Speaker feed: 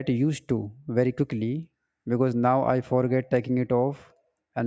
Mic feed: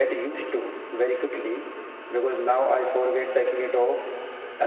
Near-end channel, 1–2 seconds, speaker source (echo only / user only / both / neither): echo only